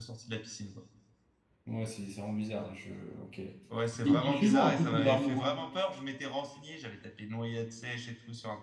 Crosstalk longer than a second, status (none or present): present